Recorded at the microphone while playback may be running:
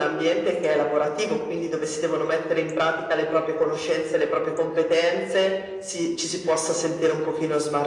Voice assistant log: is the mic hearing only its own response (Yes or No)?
Yes